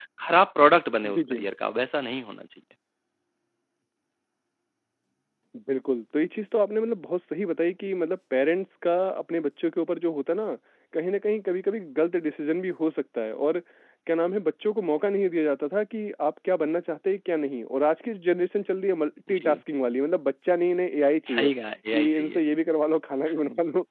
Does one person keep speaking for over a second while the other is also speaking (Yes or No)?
No